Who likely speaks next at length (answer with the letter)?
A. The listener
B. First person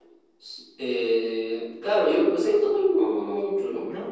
B